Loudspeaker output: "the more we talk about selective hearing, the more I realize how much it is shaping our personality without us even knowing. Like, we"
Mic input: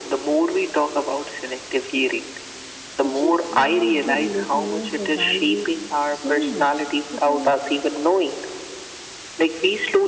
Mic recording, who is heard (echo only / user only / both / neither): both